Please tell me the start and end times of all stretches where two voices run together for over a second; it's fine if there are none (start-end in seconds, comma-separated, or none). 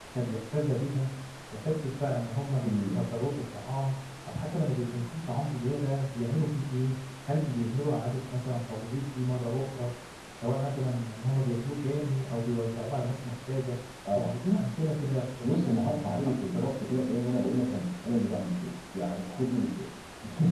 15.4-16.7